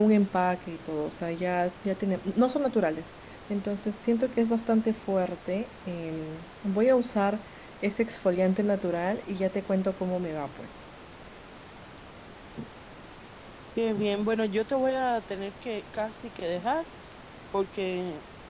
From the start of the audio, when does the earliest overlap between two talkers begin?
none

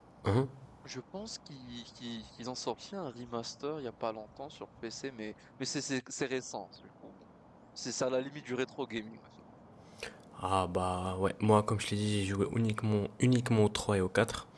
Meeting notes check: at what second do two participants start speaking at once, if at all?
none

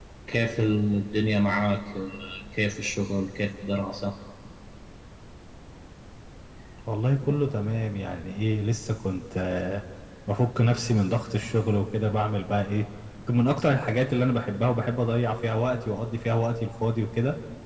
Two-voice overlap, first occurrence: none

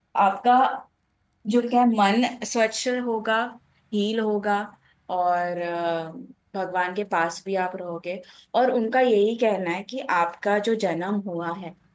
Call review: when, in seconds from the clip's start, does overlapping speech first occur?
none

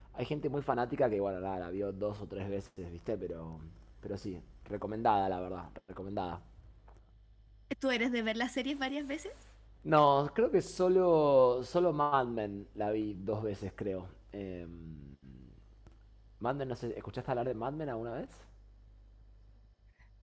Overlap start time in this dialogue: none

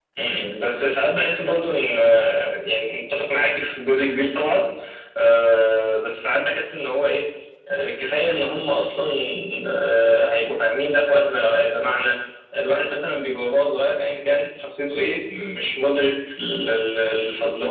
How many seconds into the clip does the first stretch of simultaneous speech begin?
none

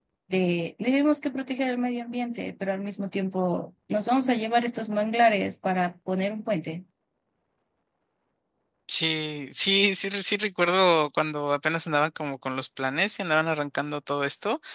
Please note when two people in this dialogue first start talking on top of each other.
none

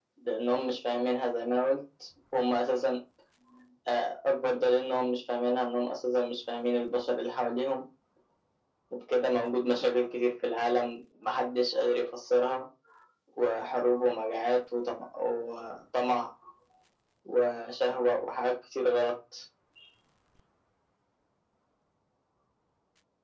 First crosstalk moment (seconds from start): none

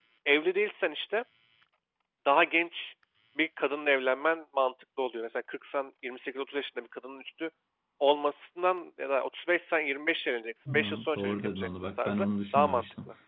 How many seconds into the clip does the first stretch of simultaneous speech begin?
10.7 s

